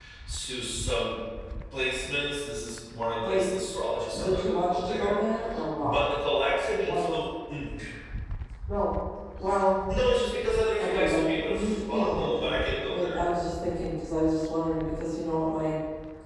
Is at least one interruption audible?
Yes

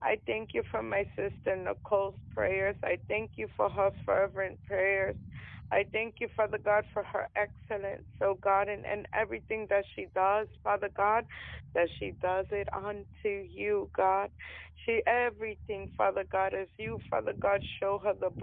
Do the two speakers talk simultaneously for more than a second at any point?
No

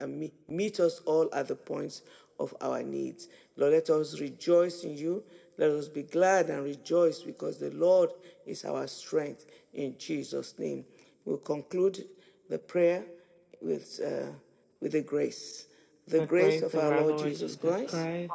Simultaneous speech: Yes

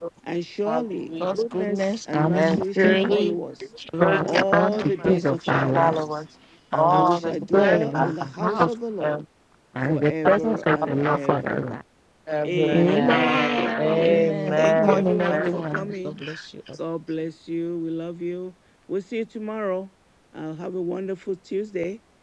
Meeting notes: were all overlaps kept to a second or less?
No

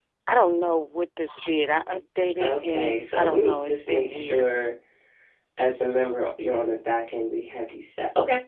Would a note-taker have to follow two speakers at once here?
Yes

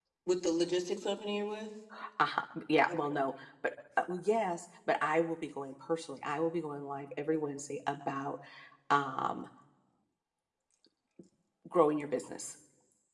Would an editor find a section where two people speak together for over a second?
No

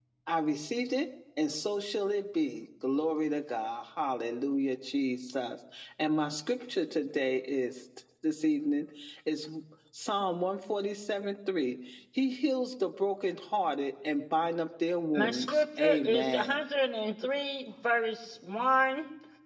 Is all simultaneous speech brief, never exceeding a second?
No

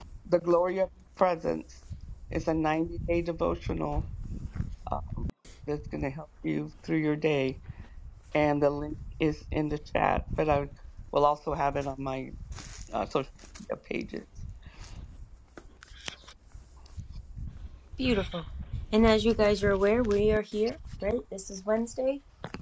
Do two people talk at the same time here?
No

